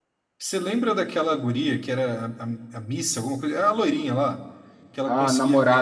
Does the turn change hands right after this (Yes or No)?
Yes